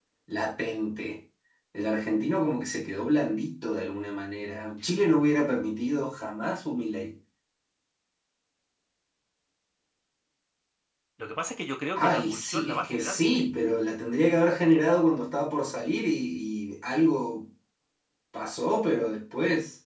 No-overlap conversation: No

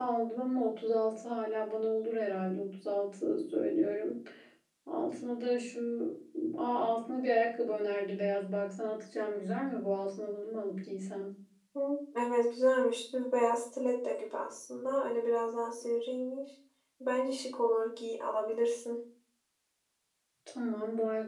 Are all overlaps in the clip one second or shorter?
Yes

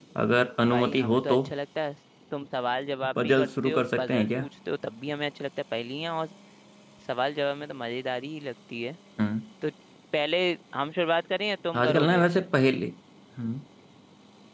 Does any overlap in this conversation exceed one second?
Yes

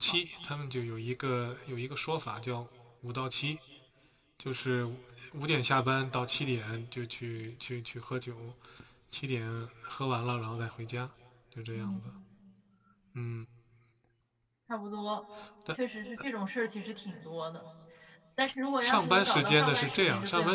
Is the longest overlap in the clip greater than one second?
Yes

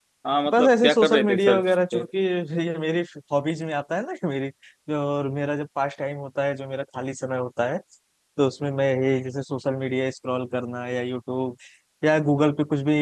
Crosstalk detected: Yes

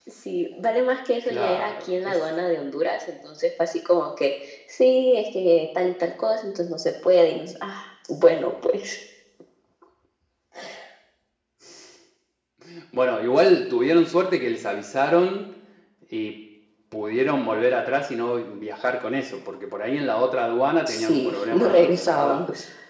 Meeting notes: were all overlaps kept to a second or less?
No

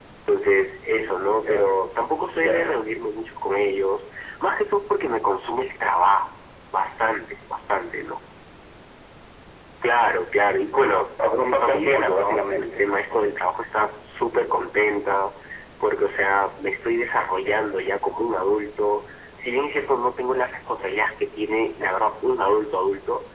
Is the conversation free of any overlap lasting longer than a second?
No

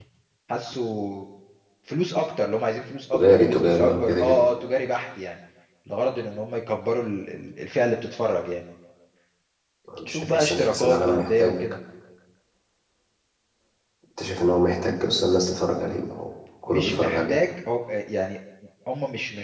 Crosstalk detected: Yes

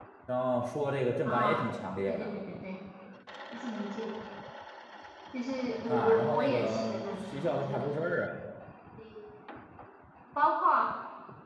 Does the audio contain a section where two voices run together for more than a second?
Yes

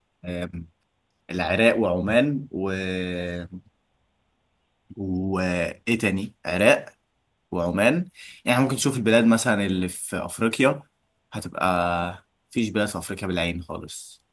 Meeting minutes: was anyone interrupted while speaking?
No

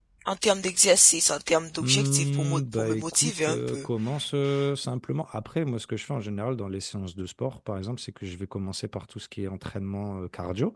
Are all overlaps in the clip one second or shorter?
No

